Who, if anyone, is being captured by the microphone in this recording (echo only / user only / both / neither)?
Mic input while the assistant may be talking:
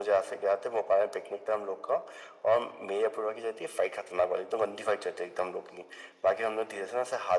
echo only